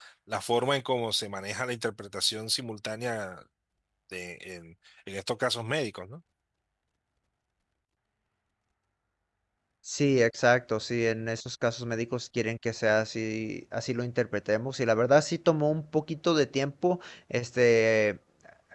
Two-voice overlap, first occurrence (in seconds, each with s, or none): none